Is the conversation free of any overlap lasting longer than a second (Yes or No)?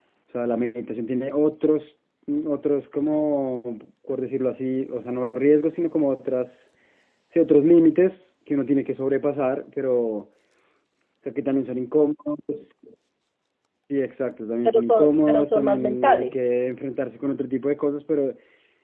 No